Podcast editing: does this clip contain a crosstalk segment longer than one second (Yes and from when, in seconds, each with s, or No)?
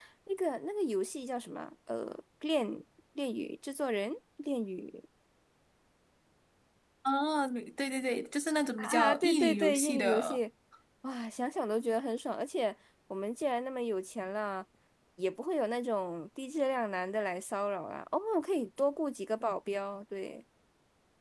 Yes, from 8.8 s